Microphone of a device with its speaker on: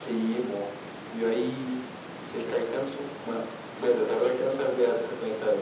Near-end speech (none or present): none